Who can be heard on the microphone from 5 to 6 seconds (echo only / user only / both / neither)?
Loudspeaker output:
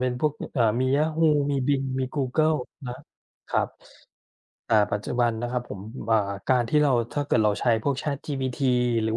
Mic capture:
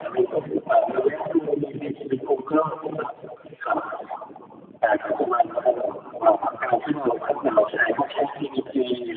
echo only